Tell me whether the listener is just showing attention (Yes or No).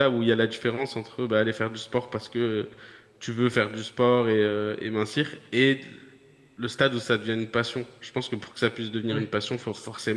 Yes